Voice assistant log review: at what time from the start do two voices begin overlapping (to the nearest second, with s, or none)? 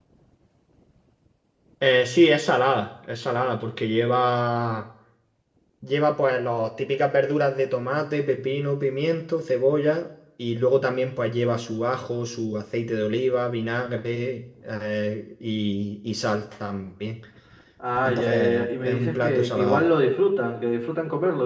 18 s